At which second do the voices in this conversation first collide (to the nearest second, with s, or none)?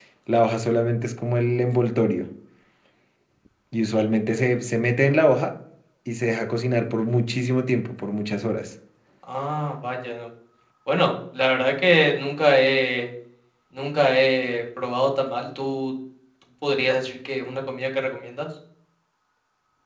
none